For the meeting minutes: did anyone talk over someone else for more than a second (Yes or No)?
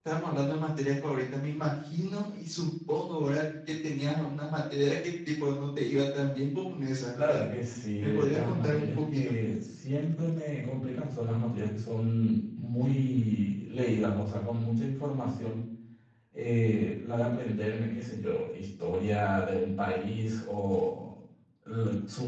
Yes